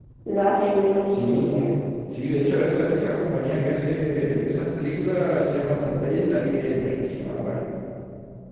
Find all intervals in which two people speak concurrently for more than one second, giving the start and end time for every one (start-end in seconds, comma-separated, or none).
none